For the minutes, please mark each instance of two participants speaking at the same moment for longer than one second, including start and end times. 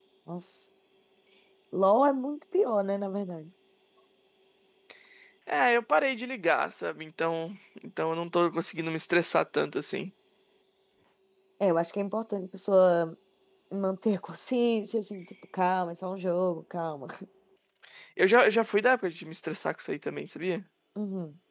none

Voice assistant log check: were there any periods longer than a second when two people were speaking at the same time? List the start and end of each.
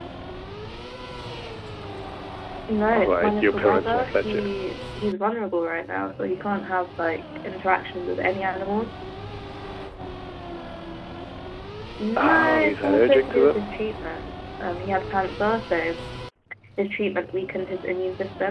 2.9-4.4, 12.2-13.7

